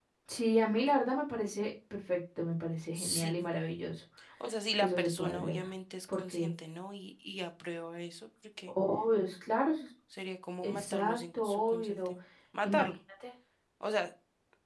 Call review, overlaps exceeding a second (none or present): present